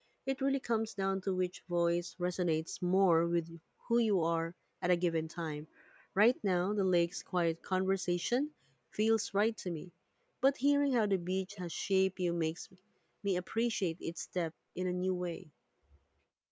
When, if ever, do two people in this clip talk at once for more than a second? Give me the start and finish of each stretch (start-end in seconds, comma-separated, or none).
none